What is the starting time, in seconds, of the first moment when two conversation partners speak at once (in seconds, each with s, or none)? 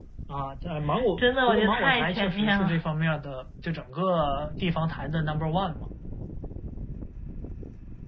1.2 s